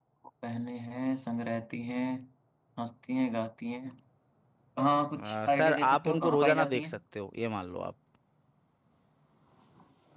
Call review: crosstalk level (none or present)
present